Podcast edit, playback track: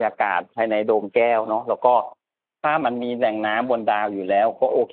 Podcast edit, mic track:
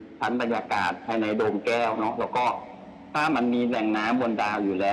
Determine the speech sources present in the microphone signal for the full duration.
echo only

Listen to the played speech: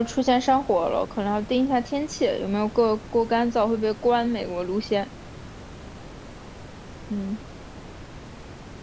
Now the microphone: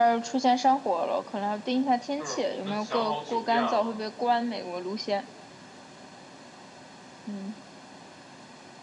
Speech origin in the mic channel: both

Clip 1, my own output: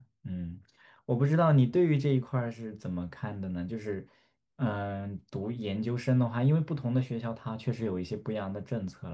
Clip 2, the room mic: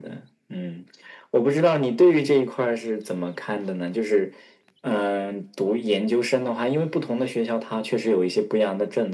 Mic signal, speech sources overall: echo only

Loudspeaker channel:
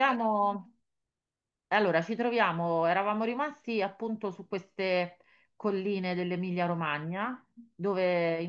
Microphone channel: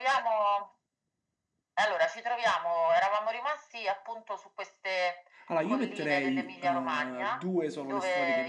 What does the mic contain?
both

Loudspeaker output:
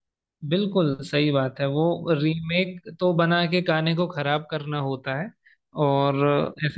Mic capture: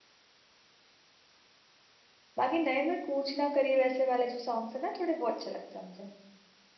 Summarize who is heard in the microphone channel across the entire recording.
user only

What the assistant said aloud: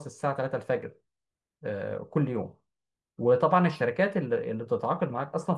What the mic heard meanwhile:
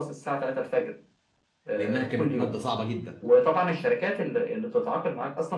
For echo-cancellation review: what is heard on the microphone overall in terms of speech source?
both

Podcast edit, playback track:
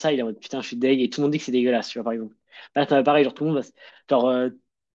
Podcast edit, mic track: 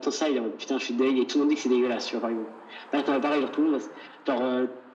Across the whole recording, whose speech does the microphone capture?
echo only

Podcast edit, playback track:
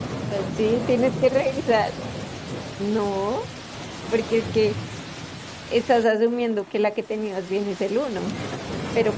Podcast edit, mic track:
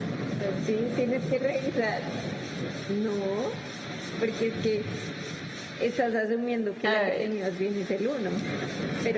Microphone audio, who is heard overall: both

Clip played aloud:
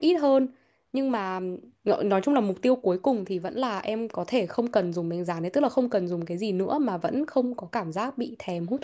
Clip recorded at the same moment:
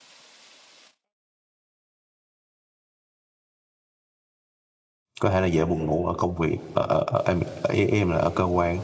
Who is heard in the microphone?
user only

